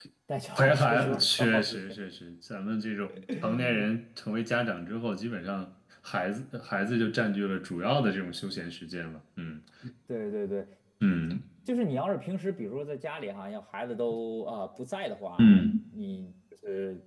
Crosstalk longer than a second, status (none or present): present